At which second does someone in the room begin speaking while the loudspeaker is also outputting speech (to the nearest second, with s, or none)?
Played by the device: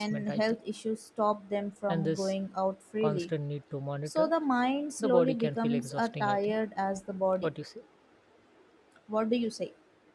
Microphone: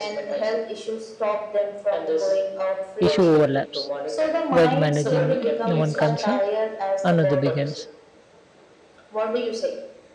3 s